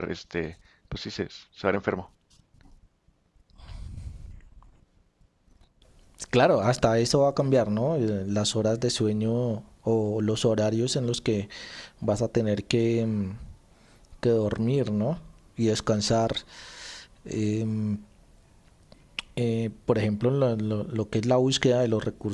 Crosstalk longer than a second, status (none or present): none